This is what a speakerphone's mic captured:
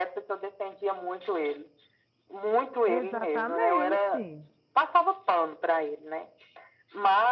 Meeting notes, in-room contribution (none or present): present